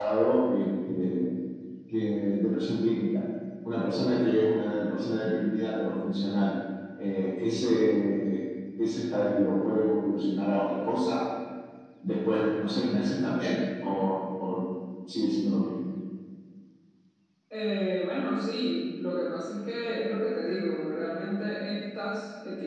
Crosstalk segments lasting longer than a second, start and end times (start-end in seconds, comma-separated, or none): none